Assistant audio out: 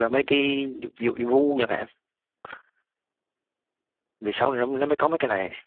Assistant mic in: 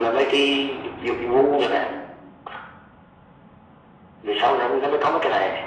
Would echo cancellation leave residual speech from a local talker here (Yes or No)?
No